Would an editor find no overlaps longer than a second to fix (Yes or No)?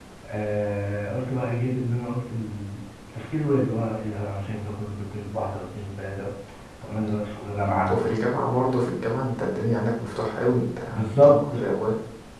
Yes